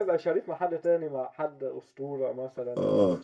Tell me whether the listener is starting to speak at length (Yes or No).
Yes